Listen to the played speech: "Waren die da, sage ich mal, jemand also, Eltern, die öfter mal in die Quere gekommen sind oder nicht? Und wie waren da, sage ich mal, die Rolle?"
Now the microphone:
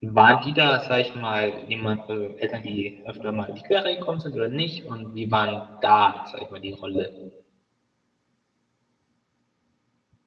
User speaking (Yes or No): No